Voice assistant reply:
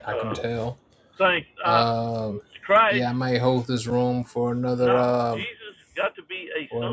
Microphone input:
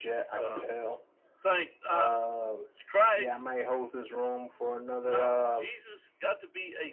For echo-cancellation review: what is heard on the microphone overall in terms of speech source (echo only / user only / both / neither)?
echo only